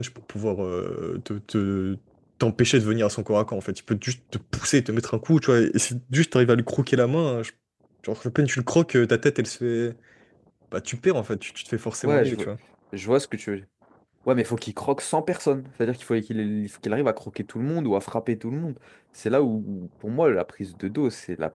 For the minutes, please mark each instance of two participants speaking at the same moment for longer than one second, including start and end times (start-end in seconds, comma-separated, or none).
none